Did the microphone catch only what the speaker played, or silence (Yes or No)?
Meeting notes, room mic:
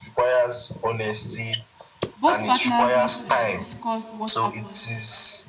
No